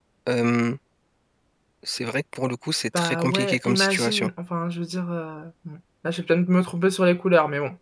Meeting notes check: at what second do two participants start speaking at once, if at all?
2.9 s

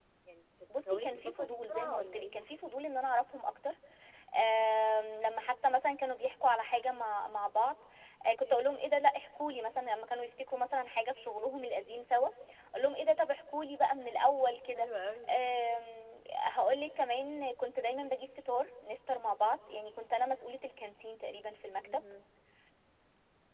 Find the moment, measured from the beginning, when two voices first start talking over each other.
0.9 s

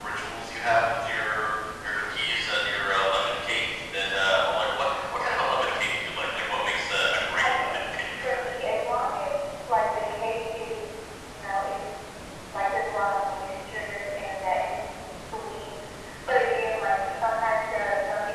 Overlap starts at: 7.4 s

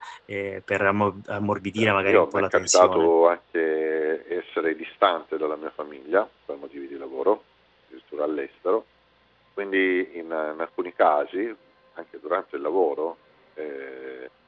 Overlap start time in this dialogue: 1.8 s

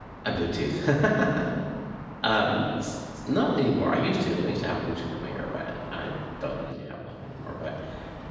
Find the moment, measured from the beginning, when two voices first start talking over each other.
none

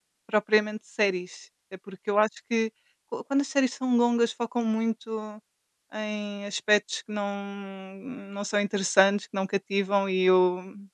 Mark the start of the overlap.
none

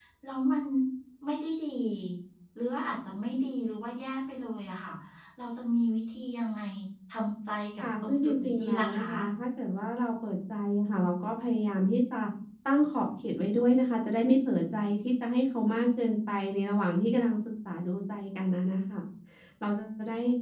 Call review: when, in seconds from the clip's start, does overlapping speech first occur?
7.8 s

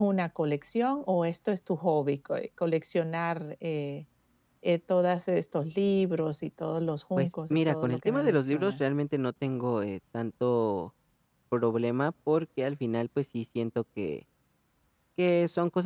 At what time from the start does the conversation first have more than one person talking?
7.2 s

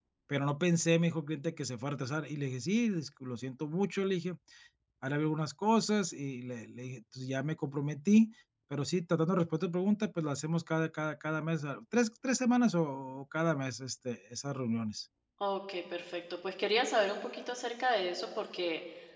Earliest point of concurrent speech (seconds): none

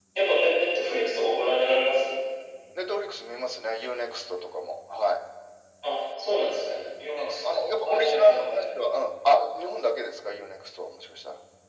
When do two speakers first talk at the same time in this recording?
7.1 s

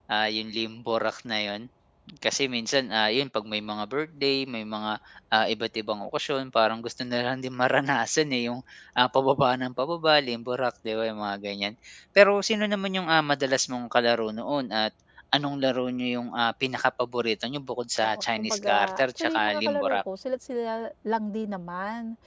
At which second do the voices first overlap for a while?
18.0 s

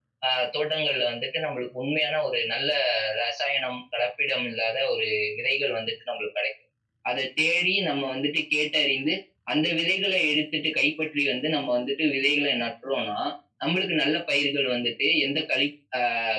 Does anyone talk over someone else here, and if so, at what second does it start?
none

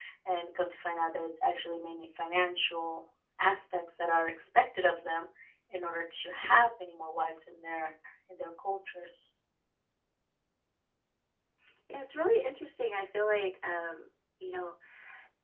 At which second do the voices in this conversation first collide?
none

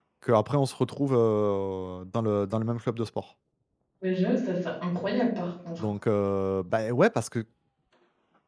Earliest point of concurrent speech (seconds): none

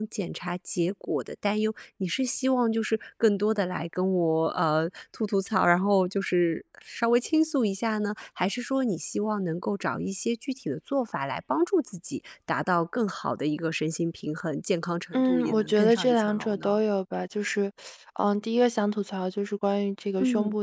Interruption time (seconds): 15.1 s

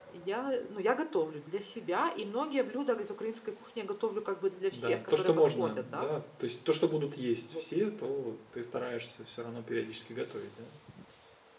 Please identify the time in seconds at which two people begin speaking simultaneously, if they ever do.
4.7 s

